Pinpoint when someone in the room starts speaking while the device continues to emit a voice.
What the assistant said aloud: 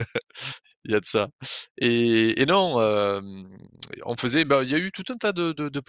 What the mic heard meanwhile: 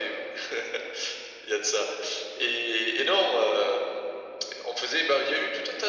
none

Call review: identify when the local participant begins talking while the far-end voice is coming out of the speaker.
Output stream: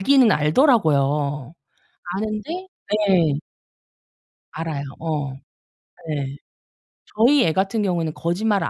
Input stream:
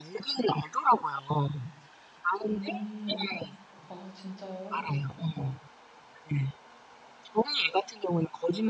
2.5 s

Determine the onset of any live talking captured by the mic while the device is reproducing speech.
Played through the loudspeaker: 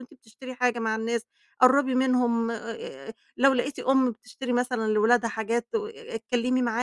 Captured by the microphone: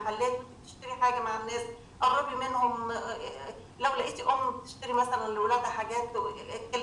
none

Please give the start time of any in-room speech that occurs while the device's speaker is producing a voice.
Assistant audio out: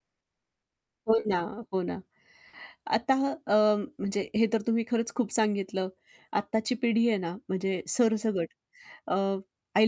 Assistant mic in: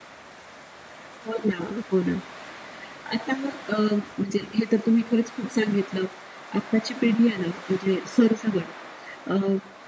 none

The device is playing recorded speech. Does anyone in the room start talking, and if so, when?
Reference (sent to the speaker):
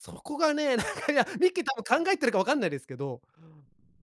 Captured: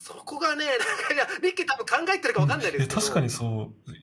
2.4 s

